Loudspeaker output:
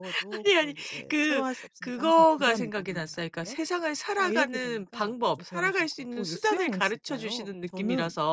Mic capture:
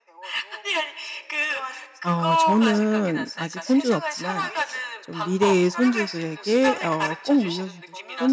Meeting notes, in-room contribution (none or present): present